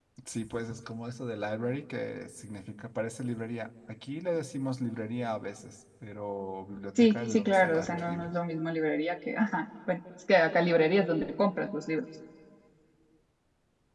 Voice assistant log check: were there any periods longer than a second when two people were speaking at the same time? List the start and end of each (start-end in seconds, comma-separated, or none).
7.0-8.3